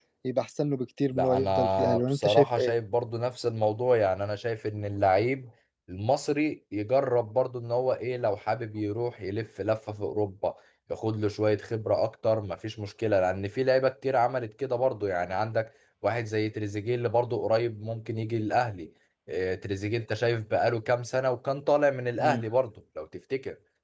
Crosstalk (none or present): present